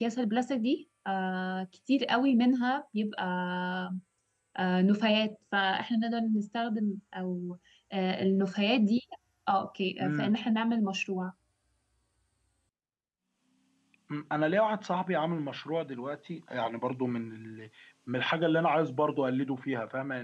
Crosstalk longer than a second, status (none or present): none